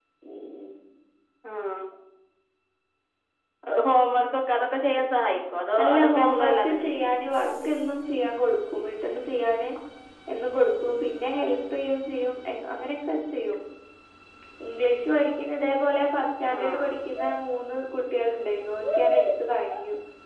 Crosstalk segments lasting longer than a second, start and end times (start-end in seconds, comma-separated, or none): 5.8-7.1